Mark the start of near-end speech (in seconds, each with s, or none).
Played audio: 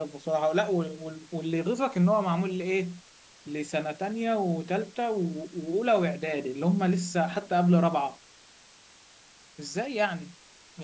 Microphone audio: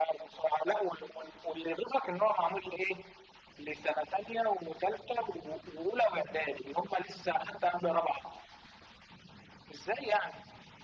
none